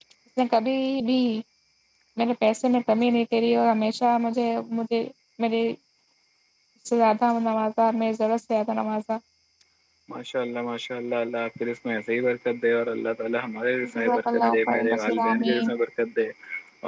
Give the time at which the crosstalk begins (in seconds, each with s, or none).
13.8 s